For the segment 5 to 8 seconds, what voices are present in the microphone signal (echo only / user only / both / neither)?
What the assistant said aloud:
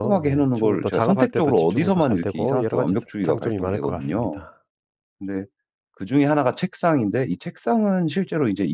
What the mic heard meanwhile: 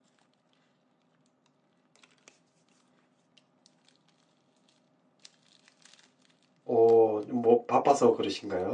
user only